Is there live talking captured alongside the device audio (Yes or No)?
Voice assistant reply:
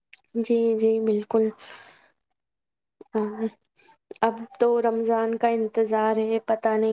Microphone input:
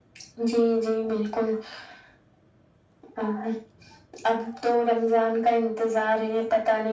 No